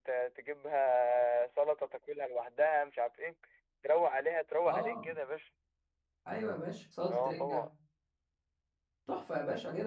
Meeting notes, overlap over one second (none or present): none